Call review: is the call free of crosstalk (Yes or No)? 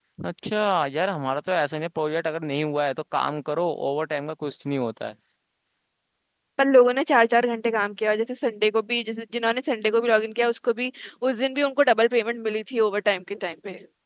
Yes